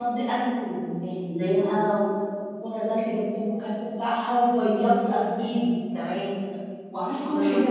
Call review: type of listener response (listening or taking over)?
listening